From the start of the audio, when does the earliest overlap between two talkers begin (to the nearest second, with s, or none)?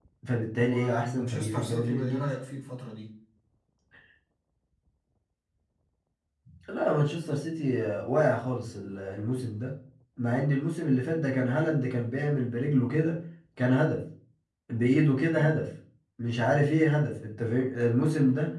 1 s